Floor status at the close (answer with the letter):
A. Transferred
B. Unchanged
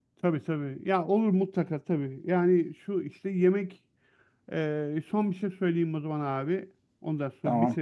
B